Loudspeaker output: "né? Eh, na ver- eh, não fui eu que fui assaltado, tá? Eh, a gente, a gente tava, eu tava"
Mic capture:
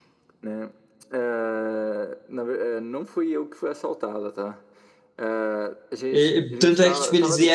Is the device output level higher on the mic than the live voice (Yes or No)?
No